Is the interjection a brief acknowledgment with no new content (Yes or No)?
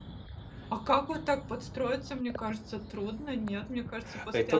No